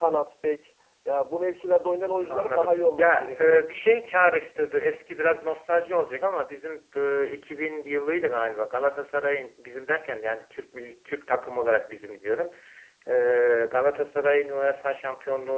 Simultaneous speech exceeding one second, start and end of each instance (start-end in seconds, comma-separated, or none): 2.3-3.6